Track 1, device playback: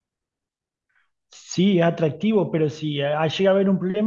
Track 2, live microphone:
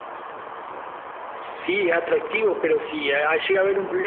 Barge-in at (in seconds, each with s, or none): none